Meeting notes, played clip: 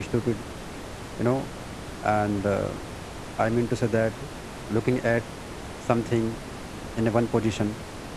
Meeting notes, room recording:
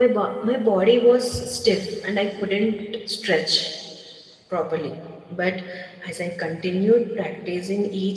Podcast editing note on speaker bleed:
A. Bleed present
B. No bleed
B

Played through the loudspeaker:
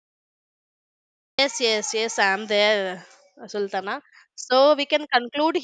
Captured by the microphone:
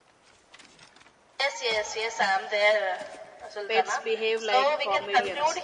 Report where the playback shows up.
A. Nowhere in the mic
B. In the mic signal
B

